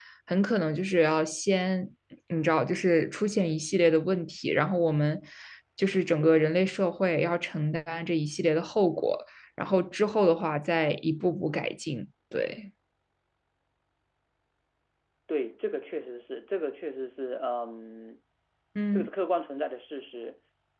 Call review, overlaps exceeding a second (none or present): none